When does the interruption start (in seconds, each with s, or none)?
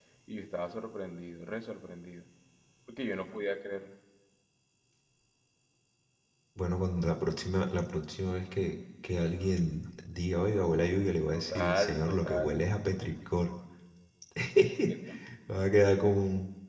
11.3 s